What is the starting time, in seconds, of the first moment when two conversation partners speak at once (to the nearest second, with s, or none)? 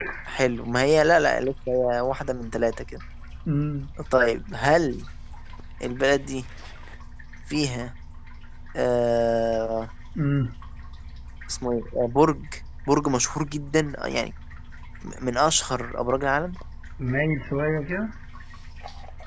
none